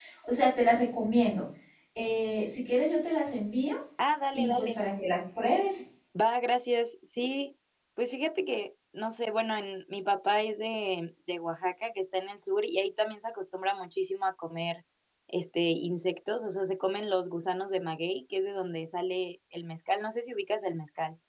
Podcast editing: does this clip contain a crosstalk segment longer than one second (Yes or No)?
No